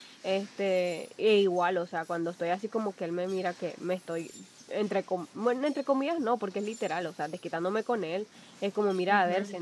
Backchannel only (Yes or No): Yes